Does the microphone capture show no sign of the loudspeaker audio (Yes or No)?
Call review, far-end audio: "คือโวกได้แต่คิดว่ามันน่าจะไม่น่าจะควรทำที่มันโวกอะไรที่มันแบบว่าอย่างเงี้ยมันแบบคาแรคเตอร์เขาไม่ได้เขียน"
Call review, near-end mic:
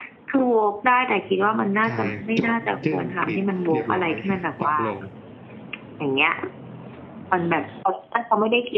No